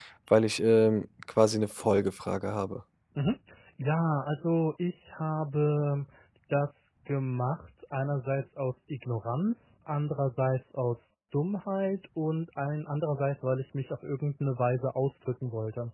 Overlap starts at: none

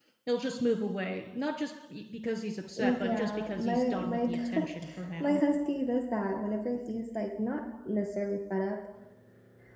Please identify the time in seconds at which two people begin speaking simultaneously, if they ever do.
2.8 s

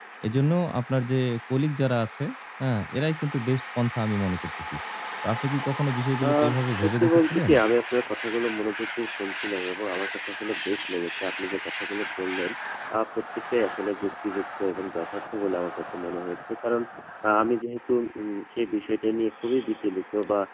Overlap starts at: 6.2 s

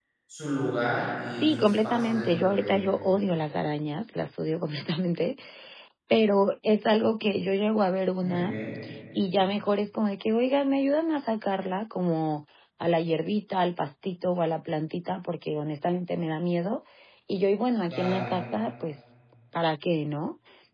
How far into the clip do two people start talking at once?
1.3 s

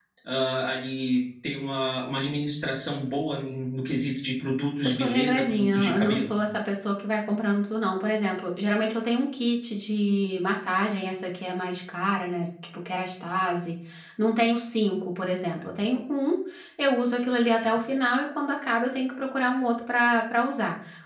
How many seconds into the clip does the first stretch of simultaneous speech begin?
4.8 s

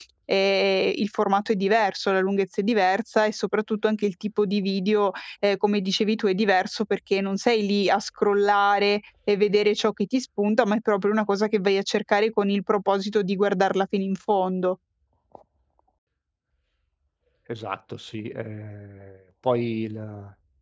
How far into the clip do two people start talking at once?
none

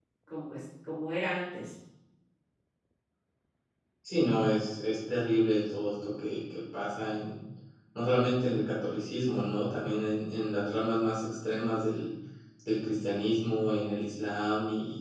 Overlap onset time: none

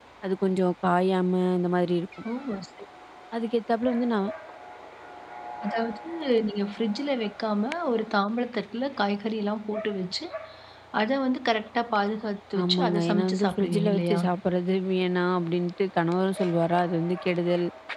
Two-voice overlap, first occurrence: 12.6 s

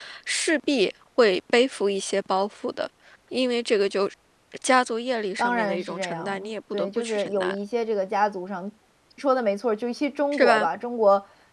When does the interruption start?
5.4 s

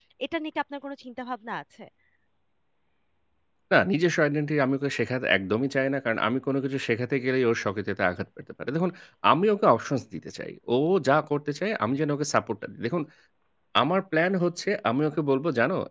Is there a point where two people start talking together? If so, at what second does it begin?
none

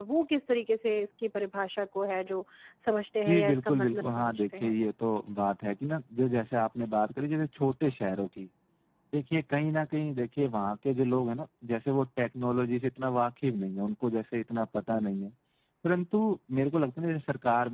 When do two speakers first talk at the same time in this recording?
3.3 s

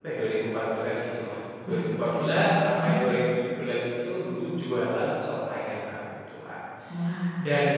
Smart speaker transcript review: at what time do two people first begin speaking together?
1.7 s

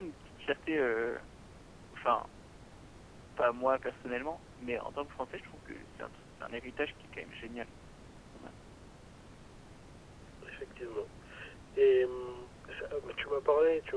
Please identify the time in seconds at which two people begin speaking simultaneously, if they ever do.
none

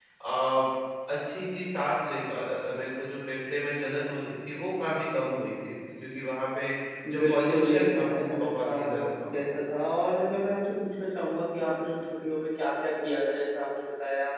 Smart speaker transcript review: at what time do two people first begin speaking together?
7.1 s

